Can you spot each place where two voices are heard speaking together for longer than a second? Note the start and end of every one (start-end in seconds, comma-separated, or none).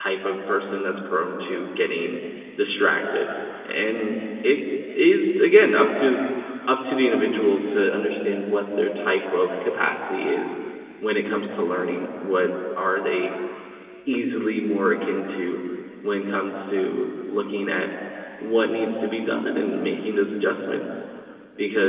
none